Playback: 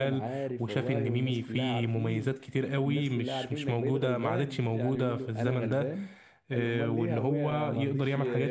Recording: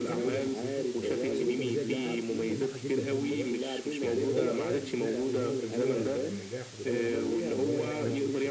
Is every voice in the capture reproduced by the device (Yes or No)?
No